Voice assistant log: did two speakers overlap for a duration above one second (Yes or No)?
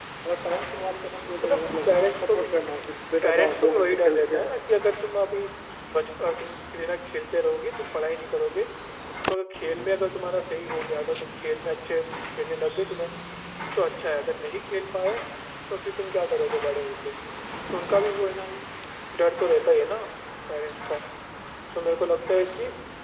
Yes